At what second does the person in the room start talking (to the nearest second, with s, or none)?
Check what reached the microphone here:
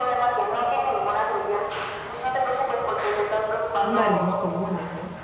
4 s